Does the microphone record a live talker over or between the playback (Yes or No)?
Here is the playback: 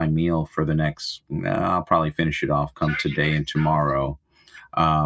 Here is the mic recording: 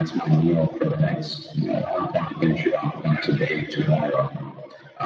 No